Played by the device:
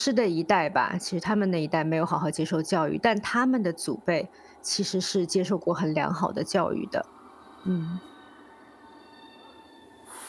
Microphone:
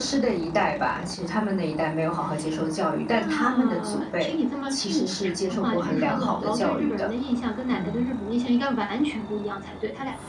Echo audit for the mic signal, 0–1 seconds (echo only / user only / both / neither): echo only